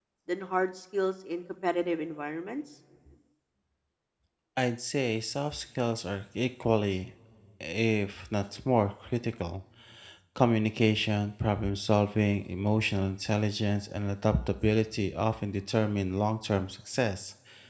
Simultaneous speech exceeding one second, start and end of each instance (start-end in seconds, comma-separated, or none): none